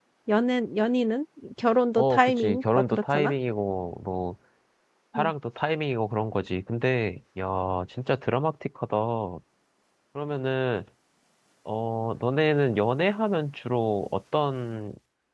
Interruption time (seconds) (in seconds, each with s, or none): 2.0 s